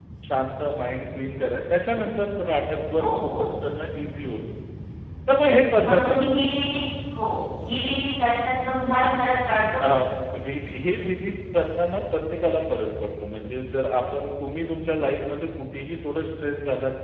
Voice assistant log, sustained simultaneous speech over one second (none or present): none